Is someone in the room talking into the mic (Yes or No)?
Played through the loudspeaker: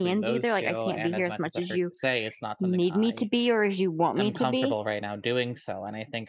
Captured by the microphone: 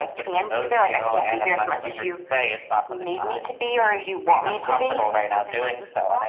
Yes